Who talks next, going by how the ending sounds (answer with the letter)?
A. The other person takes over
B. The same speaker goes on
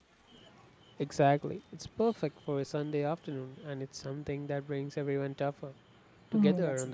A